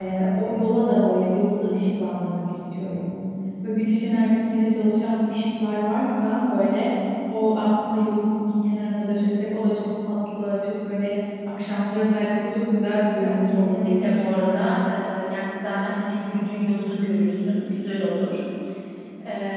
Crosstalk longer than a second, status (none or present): present